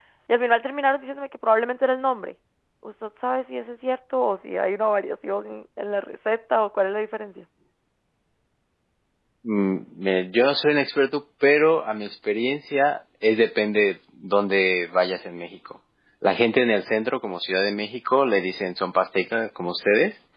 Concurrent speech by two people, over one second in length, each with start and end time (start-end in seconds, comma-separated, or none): none